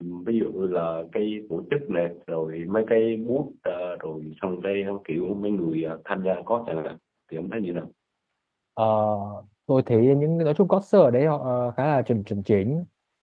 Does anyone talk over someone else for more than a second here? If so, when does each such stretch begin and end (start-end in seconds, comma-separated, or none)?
none